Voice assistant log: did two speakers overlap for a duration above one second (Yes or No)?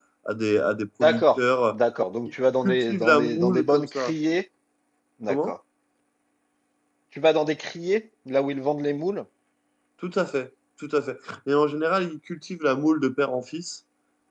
Yes